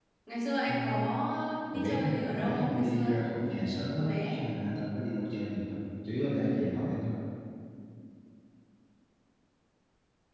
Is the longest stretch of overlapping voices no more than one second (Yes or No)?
No